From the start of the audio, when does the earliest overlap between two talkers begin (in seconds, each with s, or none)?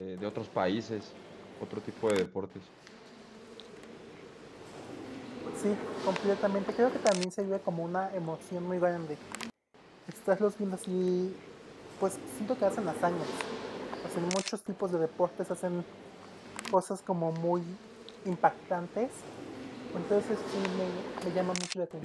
none